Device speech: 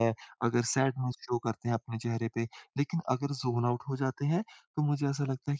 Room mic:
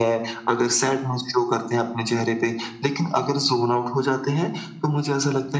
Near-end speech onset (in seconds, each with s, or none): none